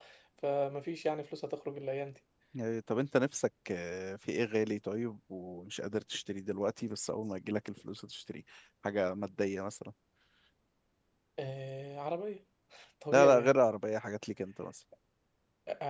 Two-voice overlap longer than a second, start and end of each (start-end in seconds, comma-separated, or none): none